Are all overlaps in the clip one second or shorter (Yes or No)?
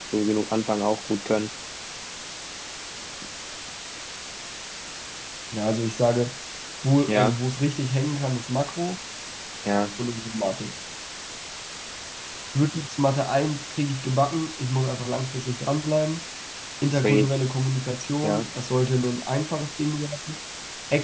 Yes